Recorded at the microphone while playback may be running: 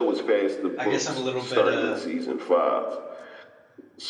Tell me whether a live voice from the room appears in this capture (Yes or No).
Yes